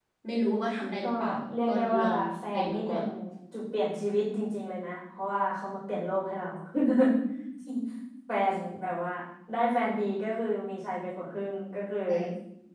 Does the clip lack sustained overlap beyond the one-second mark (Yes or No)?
No